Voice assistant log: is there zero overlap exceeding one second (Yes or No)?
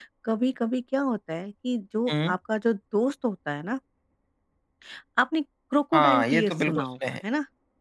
No